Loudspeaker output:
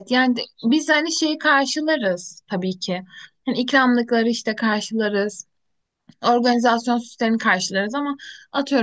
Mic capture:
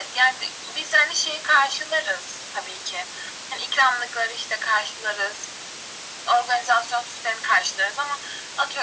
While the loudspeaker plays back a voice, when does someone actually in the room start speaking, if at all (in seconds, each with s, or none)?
none